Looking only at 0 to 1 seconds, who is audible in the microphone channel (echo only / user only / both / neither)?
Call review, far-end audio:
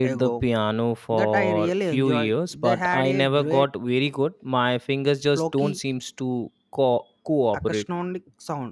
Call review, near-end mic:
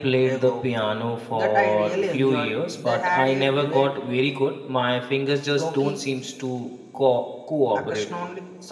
echo only